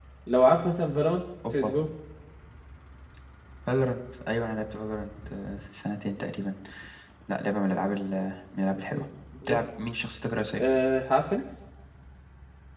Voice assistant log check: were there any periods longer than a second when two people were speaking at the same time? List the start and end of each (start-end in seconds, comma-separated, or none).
none